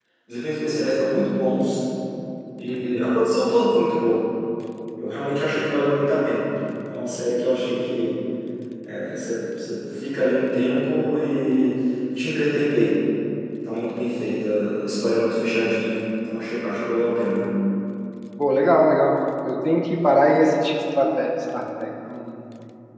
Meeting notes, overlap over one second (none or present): none